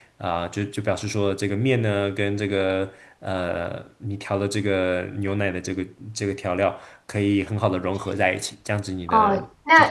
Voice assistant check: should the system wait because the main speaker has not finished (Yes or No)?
No